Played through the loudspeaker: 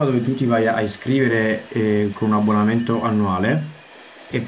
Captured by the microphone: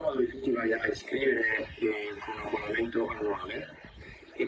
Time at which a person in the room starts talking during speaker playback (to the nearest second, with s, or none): none